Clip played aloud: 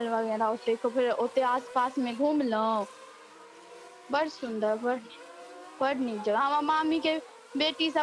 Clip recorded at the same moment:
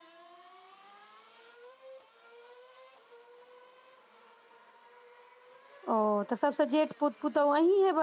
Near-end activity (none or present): present